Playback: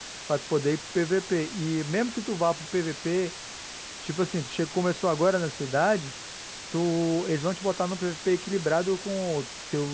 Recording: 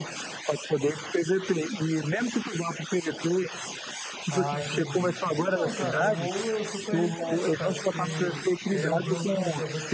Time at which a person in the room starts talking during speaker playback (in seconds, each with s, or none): 4.3 s